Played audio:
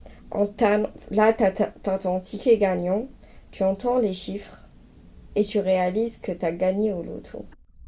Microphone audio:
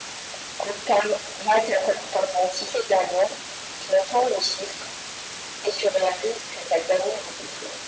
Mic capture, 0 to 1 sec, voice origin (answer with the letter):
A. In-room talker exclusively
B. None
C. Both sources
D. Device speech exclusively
D